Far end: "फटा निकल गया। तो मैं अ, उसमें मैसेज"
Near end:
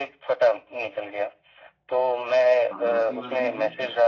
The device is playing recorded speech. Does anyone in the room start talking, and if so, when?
2.7 s

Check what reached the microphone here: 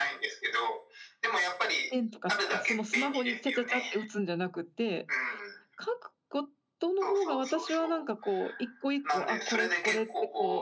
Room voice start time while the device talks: 1.9 s

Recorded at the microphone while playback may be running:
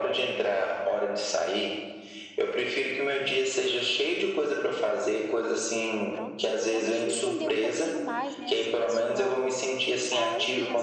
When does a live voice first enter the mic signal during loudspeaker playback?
6.1 s

